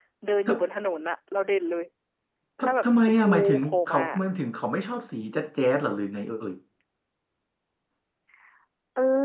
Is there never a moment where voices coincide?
No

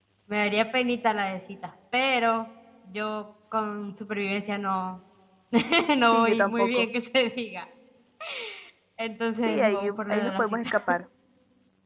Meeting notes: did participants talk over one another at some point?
Yes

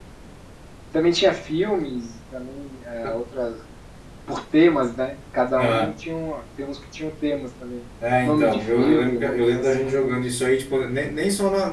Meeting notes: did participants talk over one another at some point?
Yes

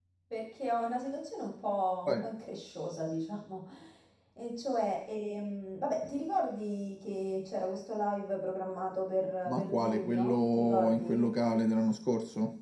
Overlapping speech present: Yes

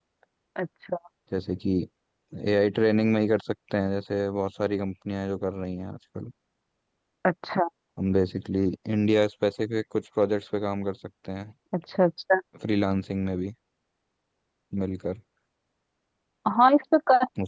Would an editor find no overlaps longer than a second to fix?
Yes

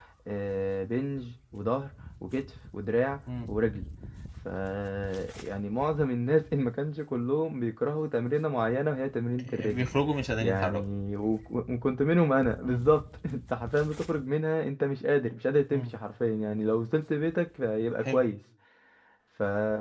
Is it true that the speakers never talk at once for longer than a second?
Yes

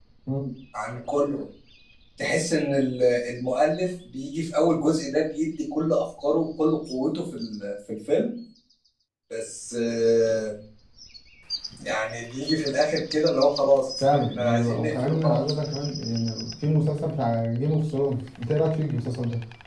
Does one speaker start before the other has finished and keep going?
Yes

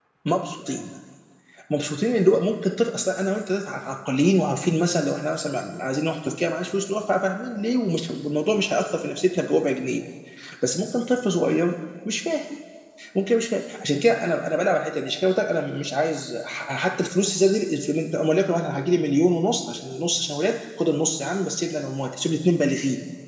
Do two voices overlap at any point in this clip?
No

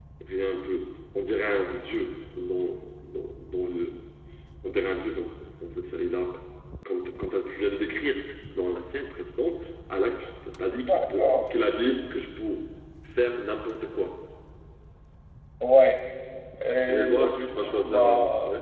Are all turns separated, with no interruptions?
No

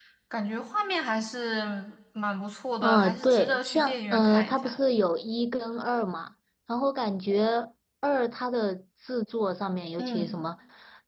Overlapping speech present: Yes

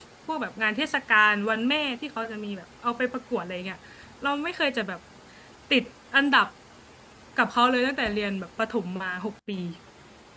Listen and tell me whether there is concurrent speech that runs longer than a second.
No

